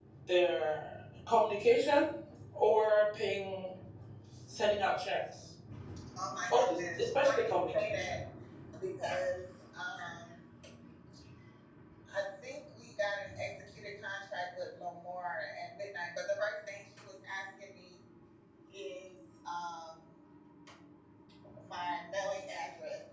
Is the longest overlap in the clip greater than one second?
Yes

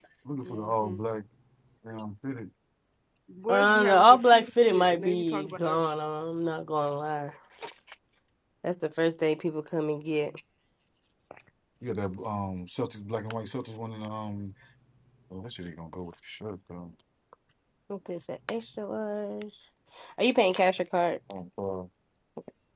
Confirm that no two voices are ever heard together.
No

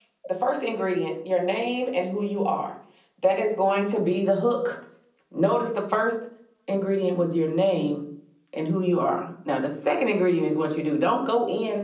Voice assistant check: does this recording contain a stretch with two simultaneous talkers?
No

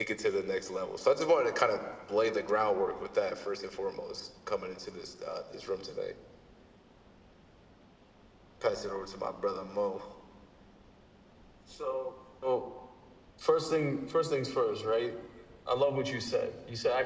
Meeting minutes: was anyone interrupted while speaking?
No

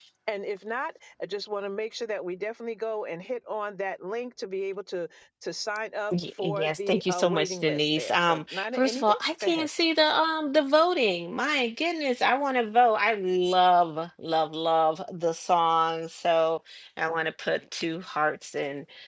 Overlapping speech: Yes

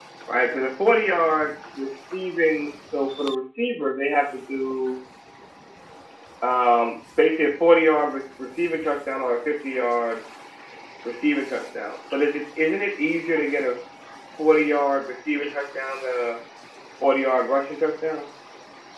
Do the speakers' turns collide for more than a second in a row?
No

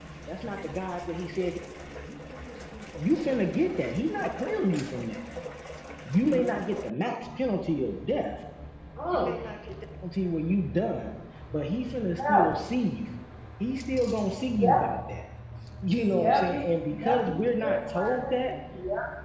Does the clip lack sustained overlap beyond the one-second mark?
No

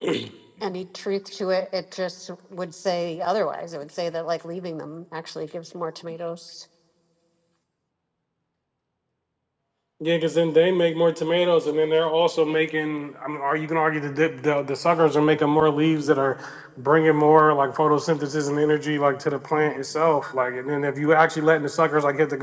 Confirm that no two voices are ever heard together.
Yes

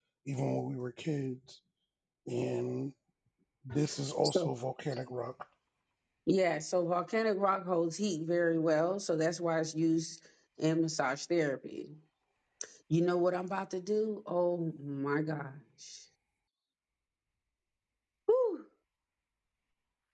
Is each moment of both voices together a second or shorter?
Yes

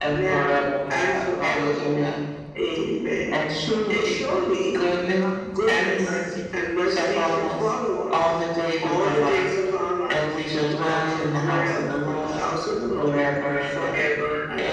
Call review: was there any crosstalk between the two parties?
Yes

